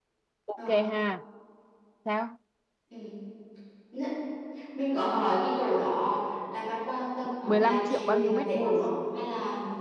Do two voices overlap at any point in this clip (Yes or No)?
Yes